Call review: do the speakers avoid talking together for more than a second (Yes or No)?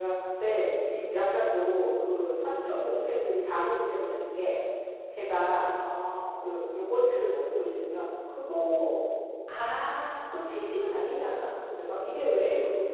Yes